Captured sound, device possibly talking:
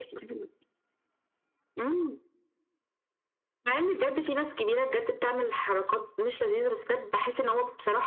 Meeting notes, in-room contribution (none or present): none